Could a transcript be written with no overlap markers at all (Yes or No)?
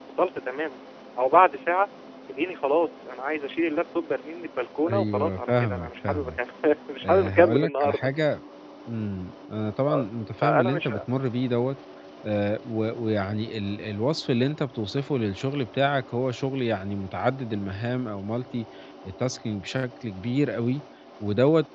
No